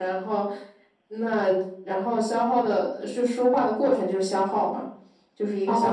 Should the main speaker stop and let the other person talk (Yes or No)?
Yes